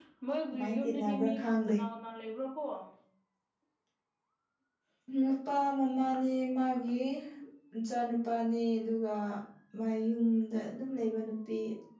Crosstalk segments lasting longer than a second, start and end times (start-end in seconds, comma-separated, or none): 0.5-1.8